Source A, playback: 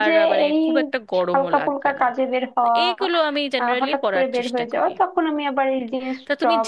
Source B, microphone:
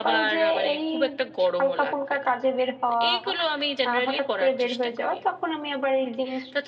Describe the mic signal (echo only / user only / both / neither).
echo only